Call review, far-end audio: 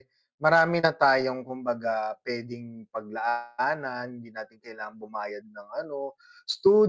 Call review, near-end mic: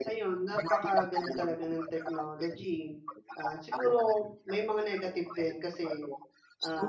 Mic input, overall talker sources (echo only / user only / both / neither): both